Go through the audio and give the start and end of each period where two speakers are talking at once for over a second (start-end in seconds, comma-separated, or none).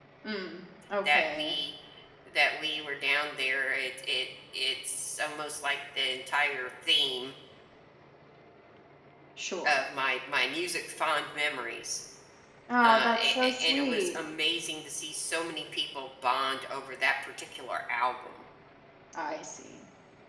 12.8-14.1